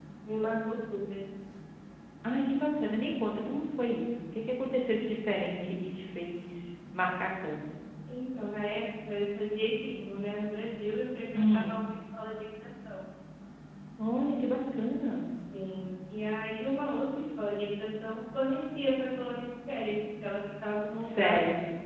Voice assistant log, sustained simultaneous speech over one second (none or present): none